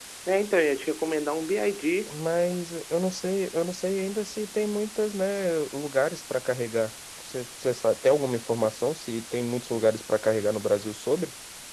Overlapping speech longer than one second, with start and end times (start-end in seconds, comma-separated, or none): none